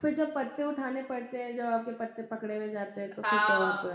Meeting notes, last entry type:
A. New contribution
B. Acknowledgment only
A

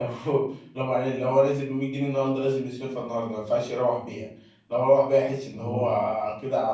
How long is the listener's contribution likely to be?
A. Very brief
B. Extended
A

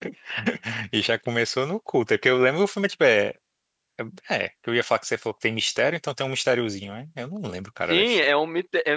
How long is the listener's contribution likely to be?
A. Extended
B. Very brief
A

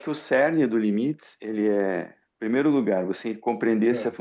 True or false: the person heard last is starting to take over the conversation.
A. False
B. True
A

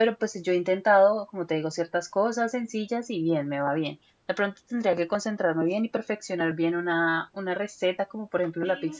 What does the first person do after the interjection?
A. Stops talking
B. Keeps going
B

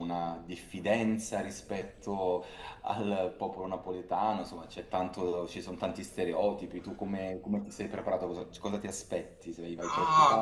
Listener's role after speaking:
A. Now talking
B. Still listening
A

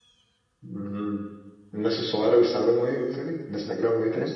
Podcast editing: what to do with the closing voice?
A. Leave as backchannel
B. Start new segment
B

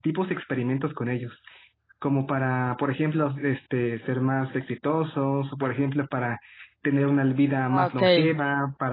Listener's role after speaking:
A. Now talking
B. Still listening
B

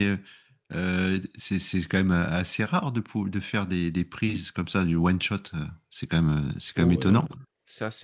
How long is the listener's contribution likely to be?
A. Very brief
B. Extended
B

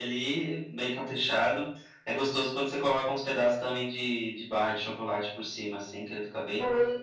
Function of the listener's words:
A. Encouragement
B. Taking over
B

